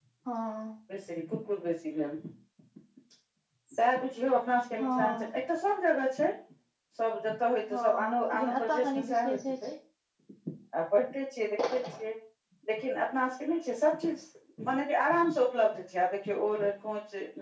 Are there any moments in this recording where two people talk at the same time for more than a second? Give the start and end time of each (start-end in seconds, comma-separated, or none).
7.7-9.7